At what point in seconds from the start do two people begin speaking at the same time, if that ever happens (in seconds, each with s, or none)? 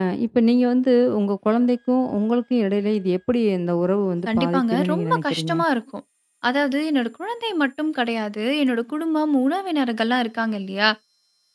4.3 s